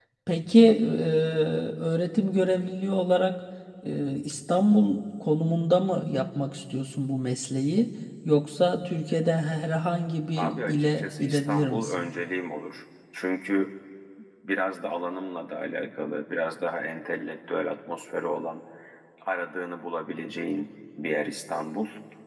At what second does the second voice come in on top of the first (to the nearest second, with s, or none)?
10 s